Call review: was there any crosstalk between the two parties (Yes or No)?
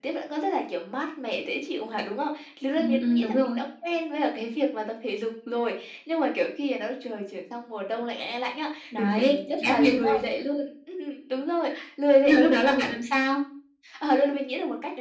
Yes